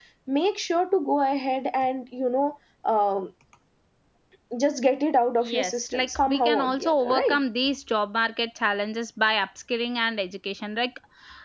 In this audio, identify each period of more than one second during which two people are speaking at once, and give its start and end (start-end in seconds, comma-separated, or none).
5.4-7.4